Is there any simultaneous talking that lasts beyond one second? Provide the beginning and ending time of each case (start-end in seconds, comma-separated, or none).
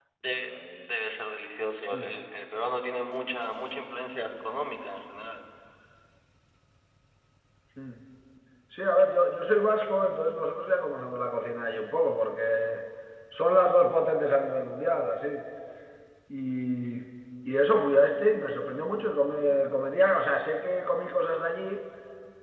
none